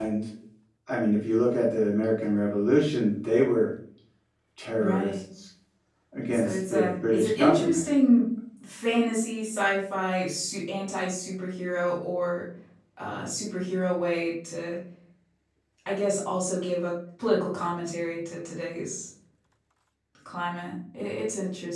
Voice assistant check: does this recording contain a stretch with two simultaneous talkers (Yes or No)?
Yes